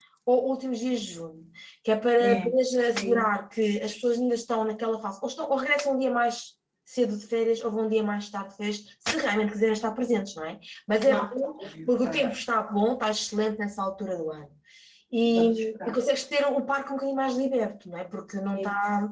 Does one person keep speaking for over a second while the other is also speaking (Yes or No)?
Yes